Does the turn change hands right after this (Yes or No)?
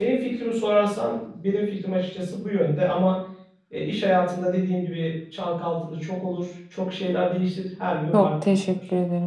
Yes